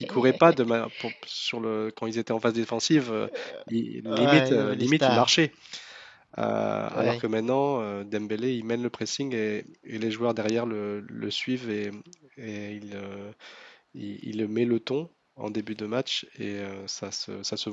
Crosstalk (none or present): present